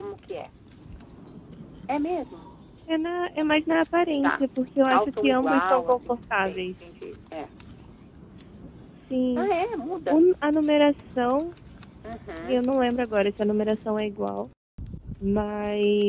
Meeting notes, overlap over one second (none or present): present